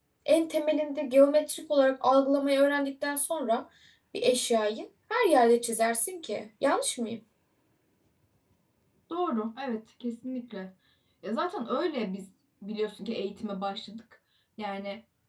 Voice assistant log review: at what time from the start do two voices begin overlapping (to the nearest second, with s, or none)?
none